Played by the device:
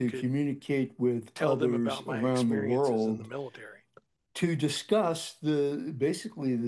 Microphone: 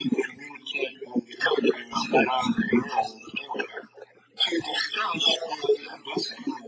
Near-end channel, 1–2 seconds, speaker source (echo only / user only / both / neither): echo only